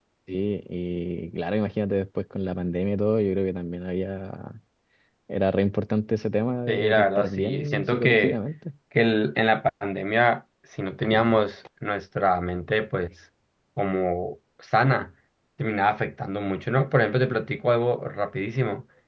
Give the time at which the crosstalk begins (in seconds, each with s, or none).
6.7 s